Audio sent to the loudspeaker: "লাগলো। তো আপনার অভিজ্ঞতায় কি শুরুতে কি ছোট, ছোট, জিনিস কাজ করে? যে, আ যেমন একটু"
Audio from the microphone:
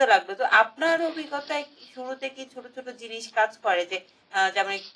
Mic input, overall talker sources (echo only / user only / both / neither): echo only